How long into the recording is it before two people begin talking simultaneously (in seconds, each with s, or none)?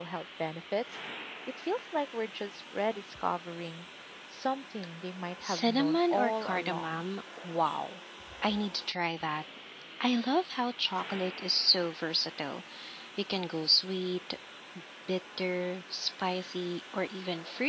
5.4 s